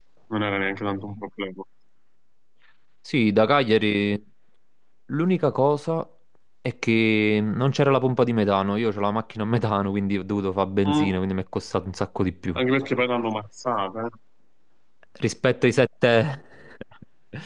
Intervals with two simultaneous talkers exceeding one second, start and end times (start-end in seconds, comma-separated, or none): none